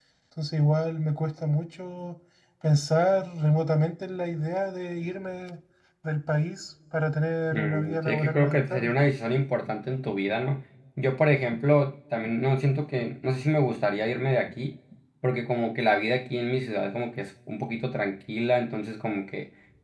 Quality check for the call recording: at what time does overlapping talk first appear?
8 s

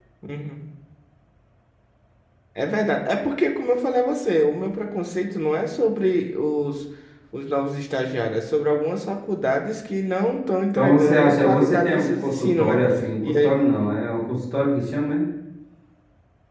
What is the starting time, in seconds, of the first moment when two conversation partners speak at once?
11 s

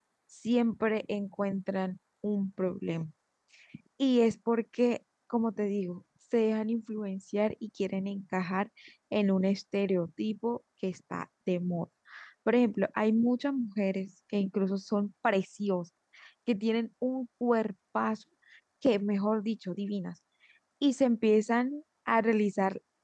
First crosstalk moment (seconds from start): none

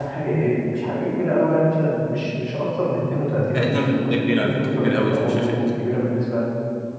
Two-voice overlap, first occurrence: 4 s

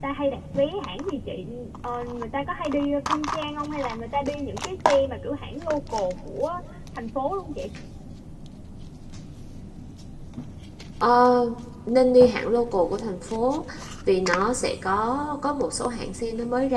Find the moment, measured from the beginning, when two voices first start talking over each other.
none

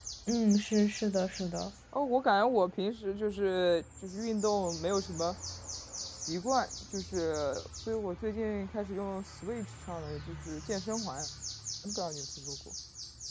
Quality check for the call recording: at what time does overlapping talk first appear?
none

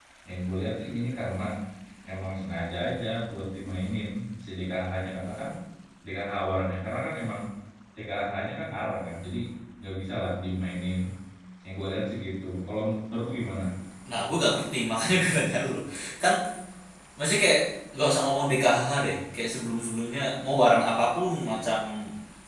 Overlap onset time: none

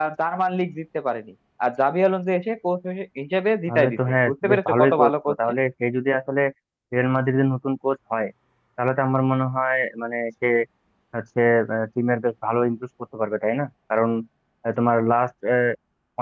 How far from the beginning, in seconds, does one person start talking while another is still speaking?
4 s

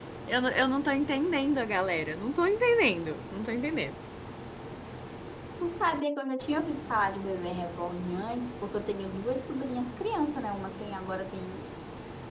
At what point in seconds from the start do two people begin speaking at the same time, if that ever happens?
none

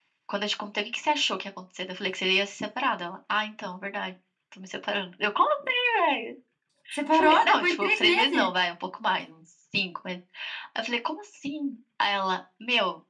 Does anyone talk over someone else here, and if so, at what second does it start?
7 s

